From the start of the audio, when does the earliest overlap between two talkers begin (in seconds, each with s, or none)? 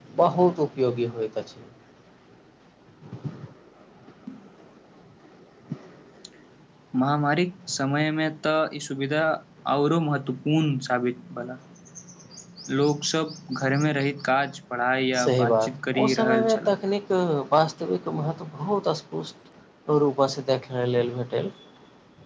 15.1 s